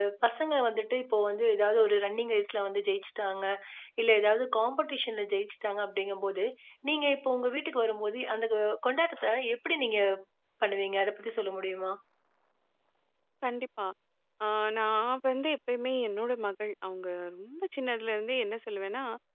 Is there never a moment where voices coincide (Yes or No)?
Yes